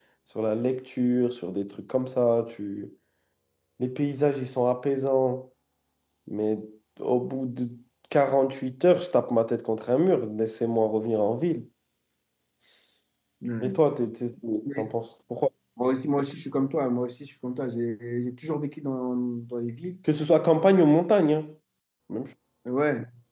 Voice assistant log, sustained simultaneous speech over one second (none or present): none